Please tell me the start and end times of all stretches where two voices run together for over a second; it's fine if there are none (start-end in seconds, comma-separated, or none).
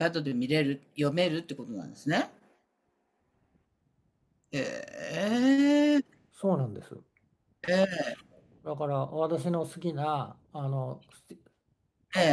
none